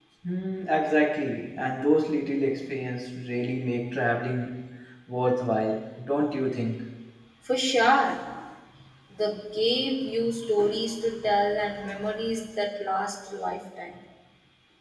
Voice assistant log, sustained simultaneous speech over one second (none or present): none